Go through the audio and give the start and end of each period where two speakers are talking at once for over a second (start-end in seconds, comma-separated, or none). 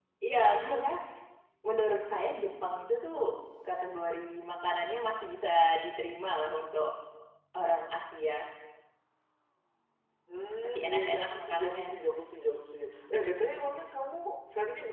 10.6-12.0